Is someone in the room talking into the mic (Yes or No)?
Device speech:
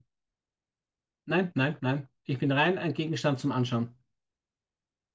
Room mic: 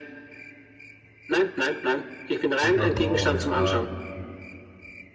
Yes